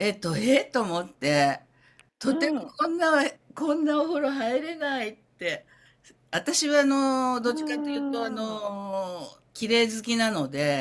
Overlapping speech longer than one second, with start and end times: 7.4-8.6

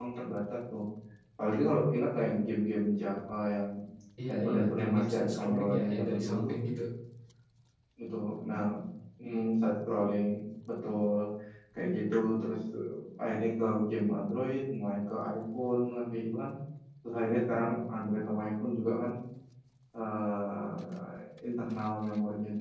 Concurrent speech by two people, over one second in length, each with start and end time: 4.3-6.5

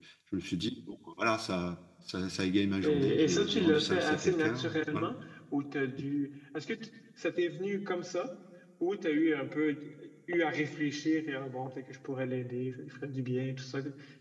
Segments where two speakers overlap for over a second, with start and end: 2.8-5.1

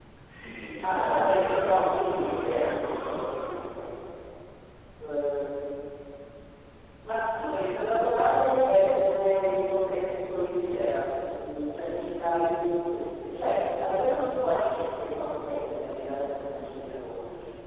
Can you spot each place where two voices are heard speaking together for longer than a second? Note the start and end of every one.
0.8-3.5

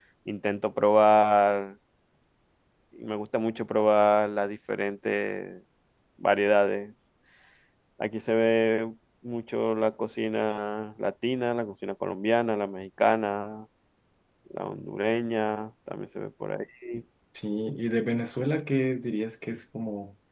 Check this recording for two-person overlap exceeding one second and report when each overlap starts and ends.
none

